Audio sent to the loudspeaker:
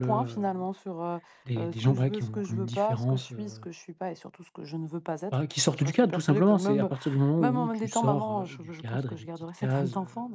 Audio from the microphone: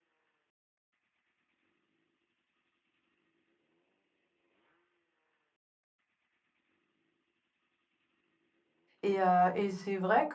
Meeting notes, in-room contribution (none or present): present